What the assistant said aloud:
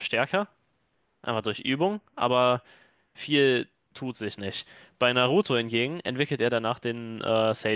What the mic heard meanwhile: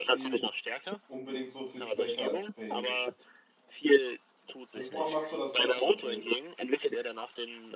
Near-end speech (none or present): present